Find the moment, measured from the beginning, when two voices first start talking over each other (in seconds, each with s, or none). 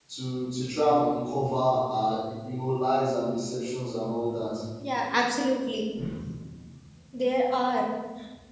none